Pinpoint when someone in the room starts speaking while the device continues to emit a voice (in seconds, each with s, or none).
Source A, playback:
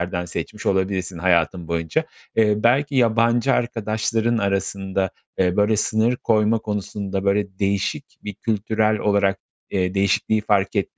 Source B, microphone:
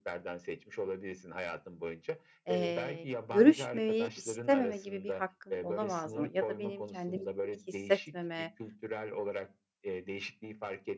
2.5 s